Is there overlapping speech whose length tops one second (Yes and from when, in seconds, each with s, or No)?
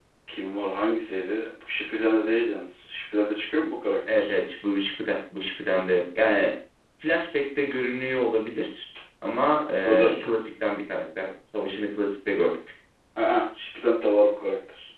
No